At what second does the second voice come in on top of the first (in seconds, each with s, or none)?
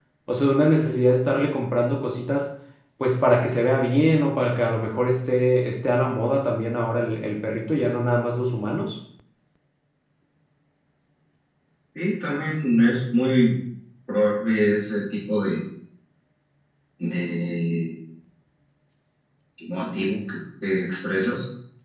none